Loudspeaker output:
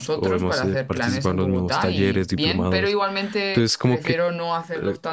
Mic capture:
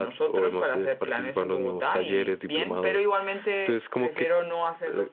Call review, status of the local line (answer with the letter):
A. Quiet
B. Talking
A